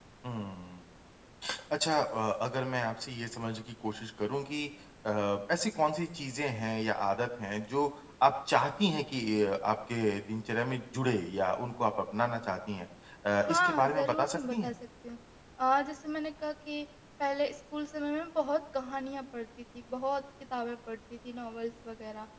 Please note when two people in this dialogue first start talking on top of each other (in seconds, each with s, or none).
13.4 s